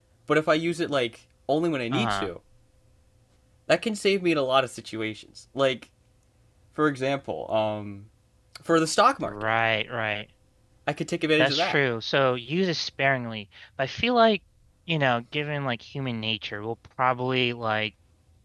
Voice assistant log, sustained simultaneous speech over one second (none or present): none